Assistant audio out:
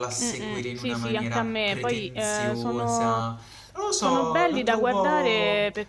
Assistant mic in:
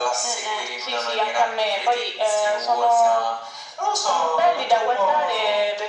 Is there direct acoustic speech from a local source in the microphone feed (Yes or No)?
No